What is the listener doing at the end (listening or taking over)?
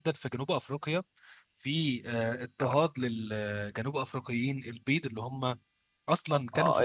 taking over